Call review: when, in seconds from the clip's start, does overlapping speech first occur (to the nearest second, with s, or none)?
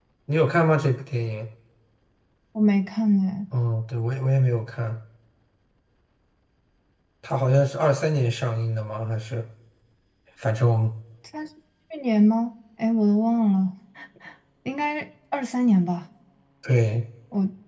none